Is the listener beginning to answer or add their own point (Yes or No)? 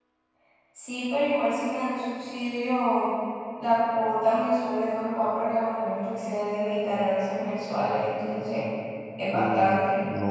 Yes